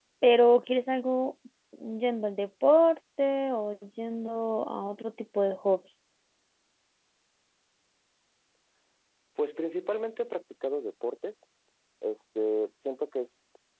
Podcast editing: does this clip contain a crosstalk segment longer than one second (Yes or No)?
No